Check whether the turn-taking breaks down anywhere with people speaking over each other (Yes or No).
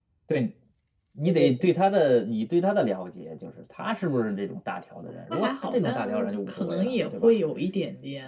Yes